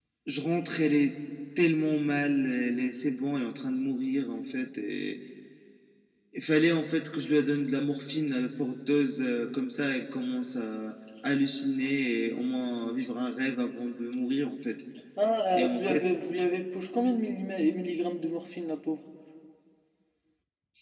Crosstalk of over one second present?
No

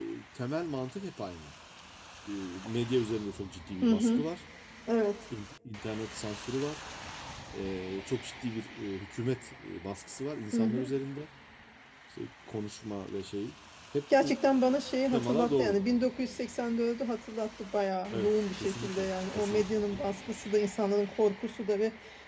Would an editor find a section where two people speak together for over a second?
Yes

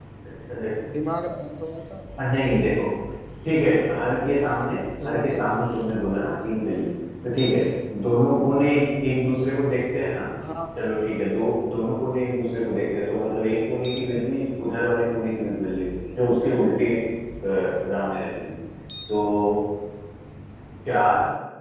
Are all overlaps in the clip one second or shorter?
Yes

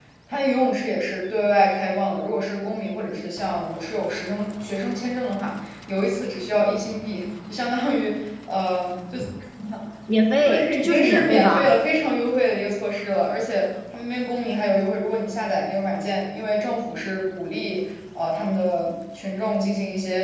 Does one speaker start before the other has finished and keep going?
Yes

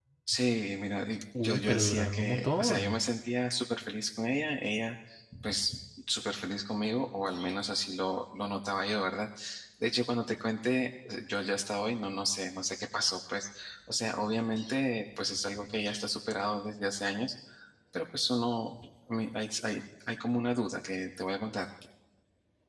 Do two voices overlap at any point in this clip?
Yes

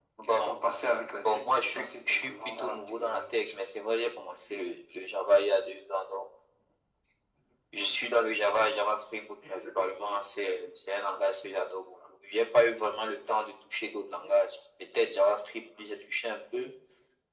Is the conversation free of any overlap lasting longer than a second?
No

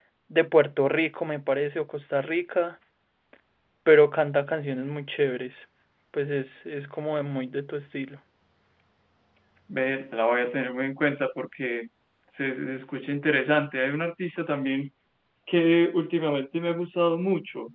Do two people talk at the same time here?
No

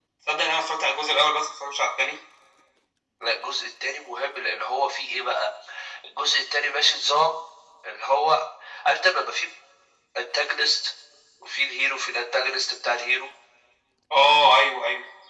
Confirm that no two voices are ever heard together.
Yes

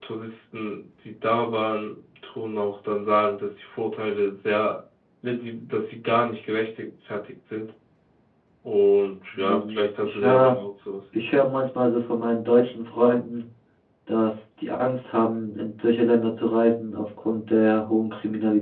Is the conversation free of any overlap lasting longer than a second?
No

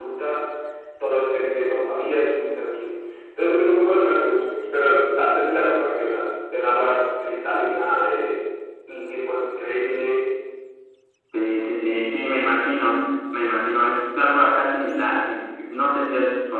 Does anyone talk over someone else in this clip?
No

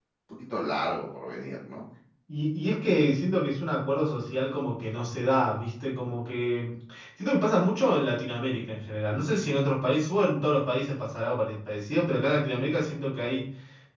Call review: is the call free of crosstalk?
Yes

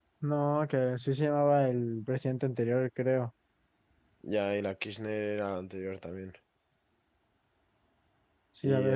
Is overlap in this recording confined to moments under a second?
Yes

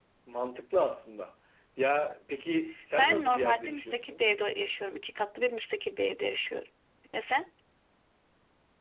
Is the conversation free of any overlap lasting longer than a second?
No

